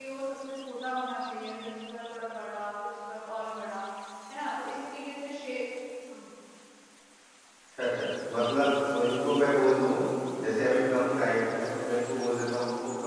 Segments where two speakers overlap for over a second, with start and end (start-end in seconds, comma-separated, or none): none